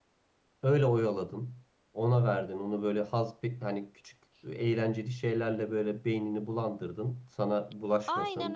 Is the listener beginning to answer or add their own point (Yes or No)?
Yes